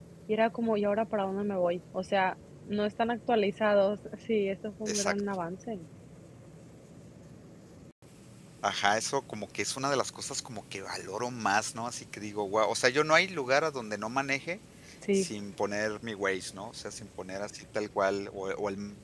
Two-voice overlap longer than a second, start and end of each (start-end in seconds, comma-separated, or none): none